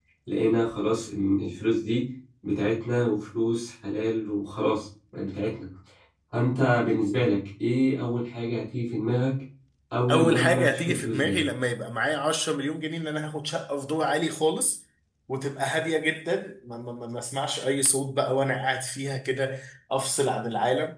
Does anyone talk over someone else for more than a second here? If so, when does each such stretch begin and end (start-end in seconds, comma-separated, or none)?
10.1-11.4